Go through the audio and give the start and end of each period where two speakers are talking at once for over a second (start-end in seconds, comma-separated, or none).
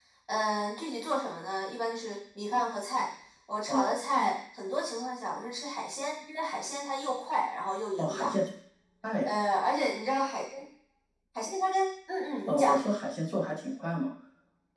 none